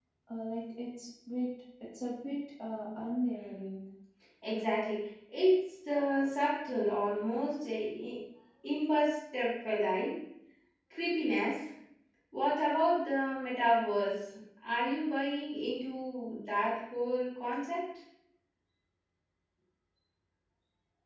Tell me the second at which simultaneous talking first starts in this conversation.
none

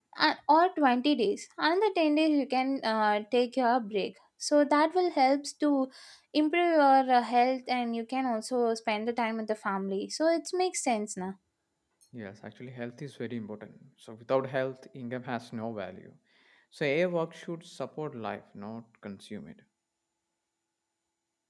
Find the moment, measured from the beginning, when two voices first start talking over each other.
none

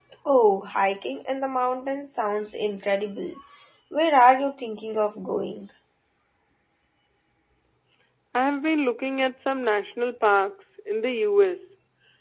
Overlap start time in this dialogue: none

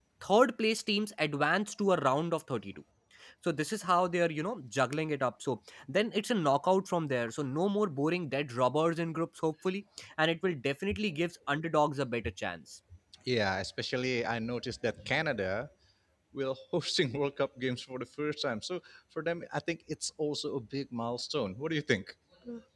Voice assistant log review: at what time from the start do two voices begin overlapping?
none

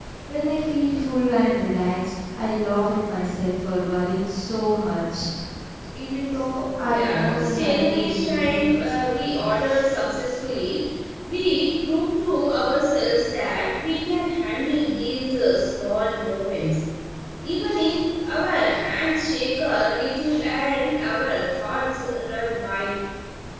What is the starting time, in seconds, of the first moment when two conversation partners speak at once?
6.8 s

